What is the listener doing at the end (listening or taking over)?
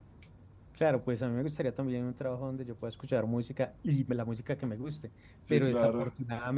listening